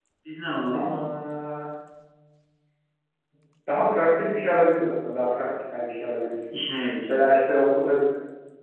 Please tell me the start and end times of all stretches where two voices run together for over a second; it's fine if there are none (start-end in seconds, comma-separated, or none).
none